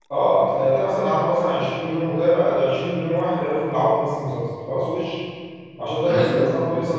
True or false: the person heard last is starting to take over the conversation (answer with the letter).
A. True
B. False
B